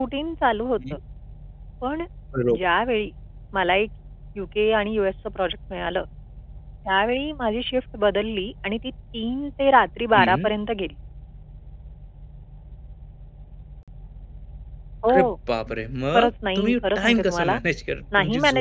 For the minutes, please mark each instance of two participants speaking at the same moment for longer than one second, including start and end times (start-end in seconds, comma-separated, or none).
16.1-17.6